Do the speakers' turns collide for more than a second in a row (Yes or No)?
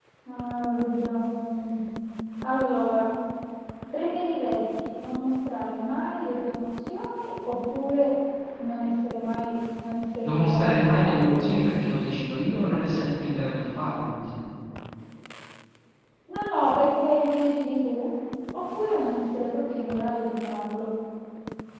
Yes